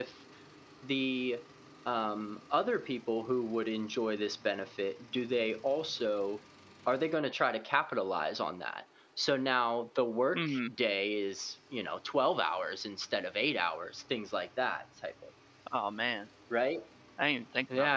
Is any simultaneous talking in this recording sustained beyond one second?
No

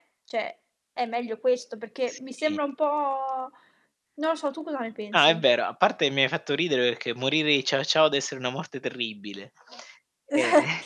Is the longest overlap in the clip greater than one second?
No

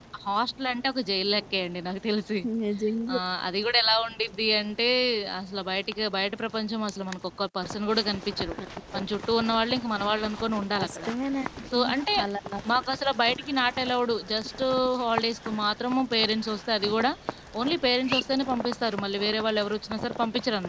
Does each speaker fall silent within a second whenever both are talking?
Yes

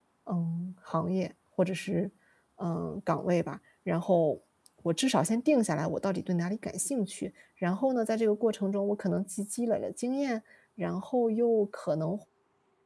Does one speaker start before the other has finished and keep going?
No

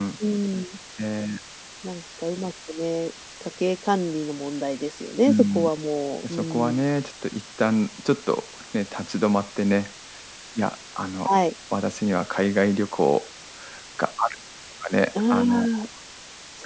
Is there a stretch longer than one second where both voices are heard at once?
No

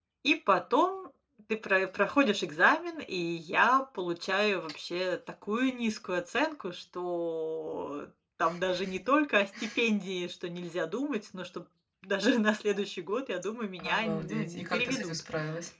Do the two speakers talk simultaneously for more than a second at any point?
Yes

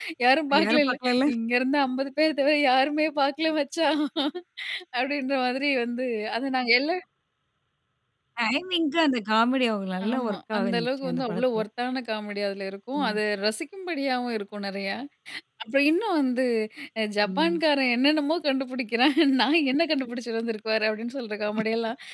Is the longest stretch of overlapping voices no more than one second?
No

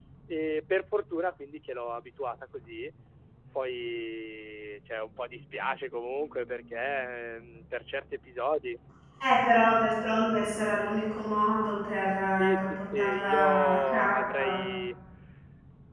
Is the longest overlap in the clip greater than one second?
Yes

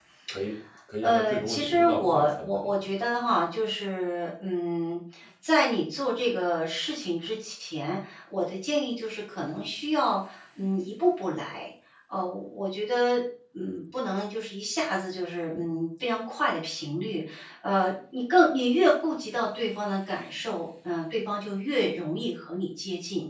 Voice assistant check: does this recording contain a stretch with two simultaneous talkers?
Yes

